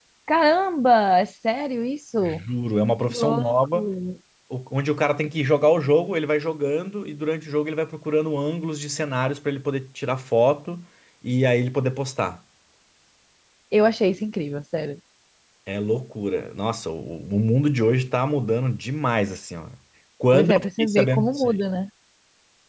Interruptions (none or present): present